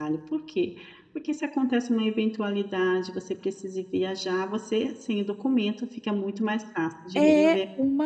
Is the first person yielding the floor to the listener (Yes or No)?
Yes